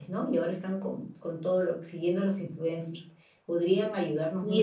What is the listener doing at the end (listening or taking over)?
taking over